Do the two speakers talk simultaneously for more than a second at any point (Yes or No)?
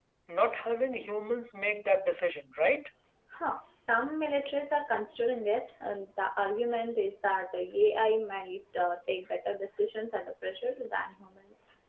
No